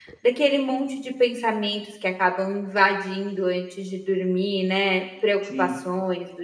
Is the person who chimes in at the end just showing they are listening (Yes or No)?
Yes